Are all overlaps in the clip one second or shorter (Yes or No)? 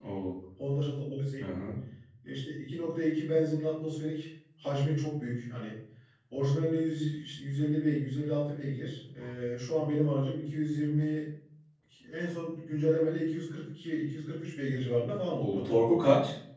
Yes